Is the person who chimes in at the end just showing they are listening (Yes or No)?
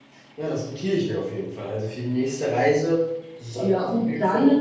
No